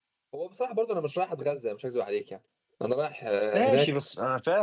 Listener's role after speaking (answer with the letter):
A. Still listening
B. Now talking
B